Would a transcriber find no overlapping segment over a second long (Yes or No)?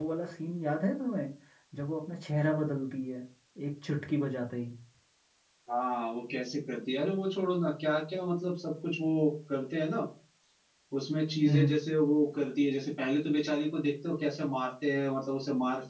Yes